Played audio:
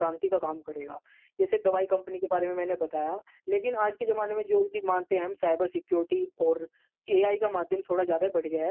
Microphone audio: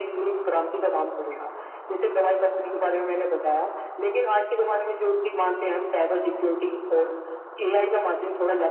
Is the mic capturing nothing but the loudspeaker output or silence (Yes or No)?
Yes